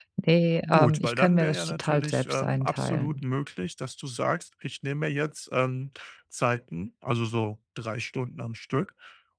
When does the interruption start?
0.7 s

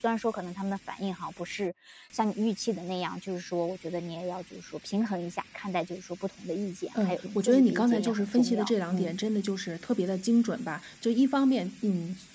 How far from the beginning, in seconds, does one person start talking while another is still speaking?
7.0 s

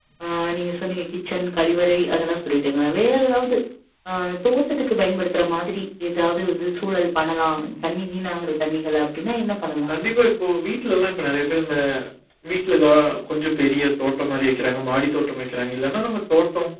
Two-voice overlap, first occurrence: none

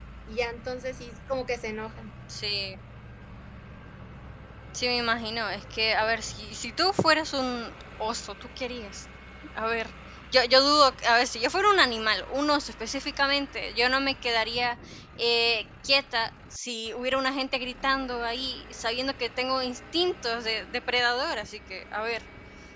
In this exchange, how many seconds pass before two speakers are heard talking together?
none

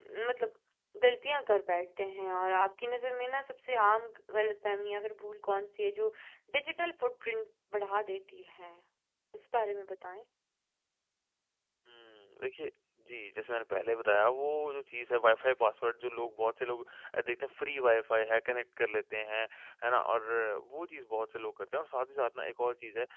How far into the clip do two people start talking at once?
none

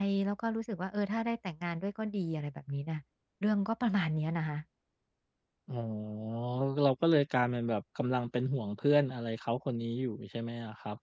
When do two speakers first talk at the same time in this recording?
none

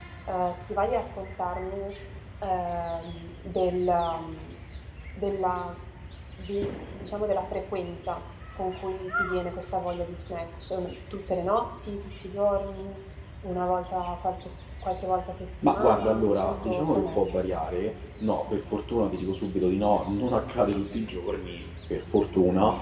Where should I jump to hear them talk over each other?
15.6 s

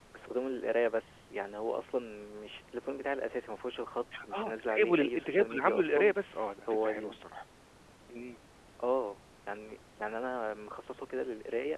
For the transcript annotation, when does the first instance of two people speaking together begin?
4.4 s

